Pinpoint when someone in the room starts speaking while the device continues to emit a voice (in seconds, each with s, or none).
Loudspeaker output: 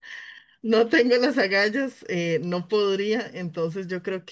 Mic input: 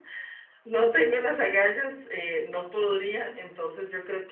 none